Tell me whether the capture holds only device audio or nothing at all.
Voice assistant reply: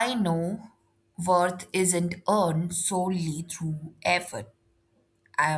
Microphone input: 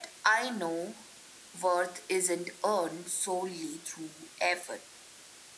Yes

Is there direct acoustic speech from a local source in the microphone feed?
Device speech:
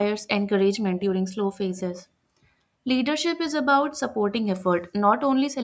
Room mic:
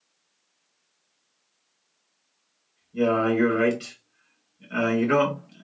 Yes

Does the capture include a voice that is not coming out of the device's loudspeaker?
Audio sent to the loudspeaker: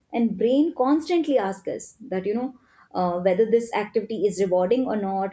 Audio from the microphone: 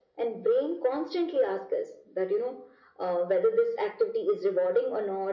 No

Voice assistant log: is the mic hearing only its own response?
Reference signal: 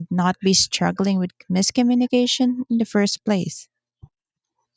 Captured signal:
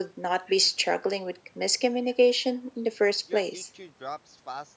No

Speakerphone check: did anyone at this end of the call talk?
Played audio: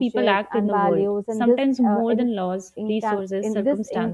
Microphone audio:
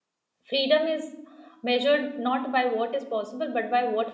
Yes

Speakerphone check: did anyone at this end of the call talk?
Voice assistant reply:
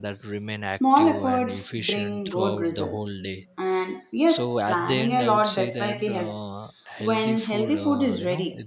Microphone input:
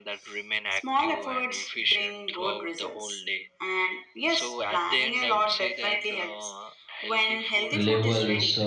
Yes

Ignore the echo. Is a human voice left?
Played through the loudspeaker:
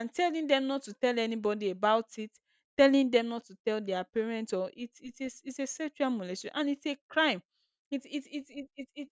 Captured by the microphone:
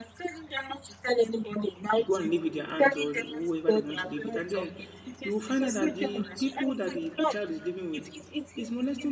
Yes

